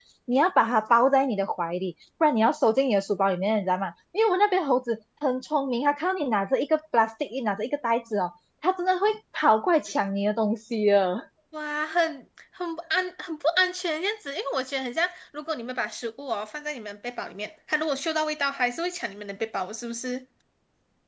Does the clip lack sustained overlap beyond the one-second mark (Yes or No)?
Yes